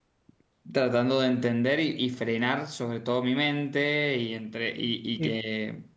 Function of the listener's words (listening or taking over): listening